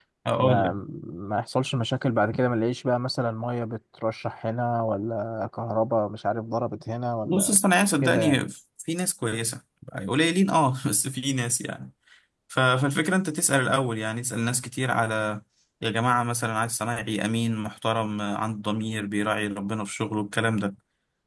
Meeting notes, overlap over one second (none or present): none